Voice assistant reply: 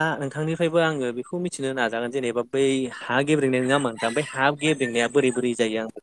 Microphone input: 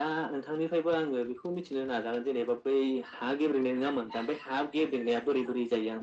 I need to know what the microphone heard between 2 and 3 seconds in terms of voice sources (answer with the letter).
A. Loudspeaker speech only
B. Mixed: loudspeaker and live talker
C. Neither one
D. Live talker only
A